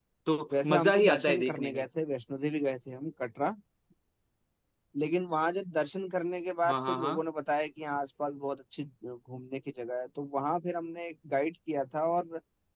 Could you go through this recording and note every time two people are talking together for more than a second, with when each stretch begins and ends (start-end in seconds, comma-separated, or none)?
0.5-1.8